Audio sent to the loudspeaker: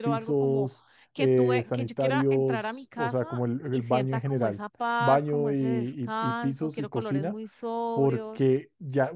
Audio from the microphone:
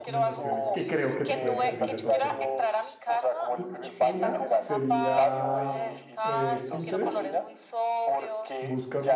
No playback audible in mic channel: No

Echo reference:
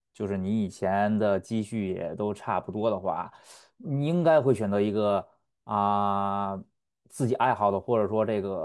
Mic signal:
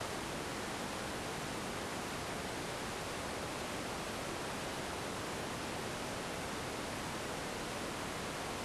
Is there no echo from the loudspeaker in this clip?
Yes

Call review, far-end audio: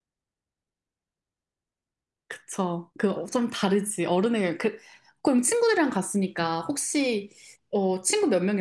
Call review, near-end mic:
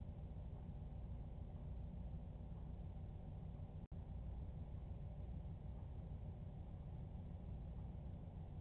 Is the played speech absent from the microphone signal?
Yes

